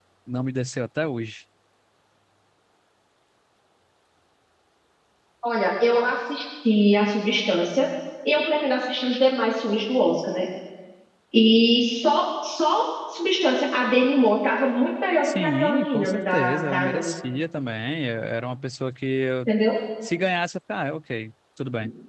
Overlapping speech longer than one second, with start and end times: 15.2-17.1

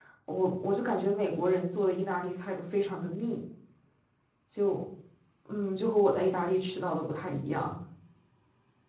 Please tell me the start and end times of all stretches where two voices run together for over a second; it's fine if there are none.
none

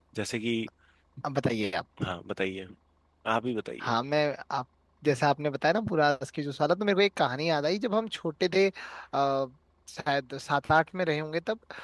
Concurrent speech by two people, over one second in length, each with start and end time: none

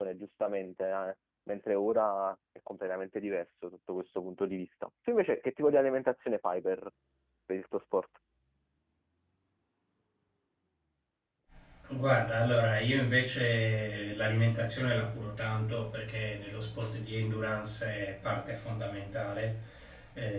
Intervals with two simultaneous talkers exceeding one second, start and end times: none

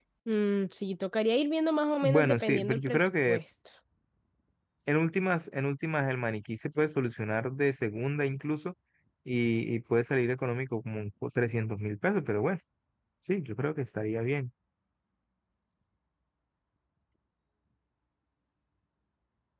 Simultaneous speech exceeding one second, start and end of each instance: 2.0-3.4

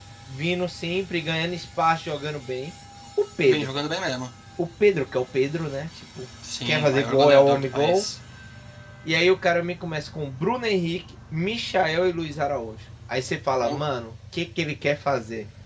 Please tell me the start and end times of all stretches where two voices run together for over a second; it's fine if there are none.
6.7-8.0

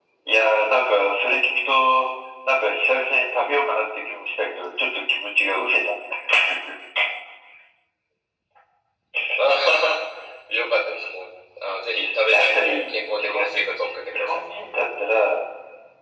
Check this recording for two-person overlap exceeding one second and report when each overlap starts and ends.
12.3-13.6

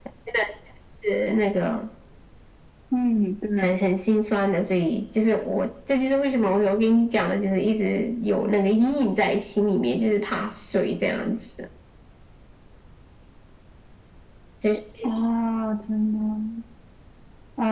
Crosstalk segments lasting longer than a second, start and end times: none

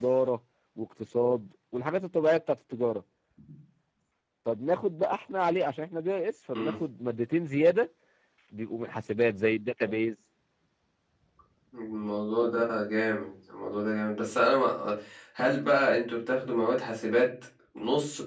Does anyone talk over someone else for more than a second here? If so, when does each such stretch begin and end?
none

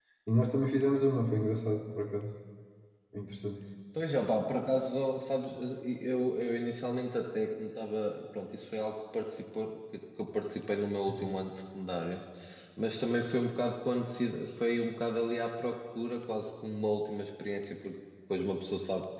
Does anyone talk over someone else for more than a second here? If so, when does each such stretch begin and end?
none

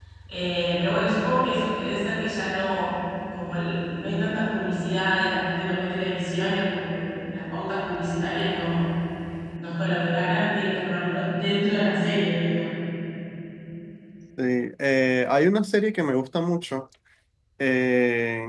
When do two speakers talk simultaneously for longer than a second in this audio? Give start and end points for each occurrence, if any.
none

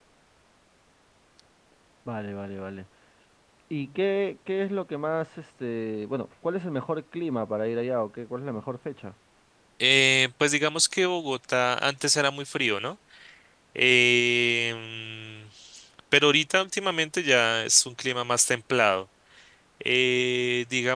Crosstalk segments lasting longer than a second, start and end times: none

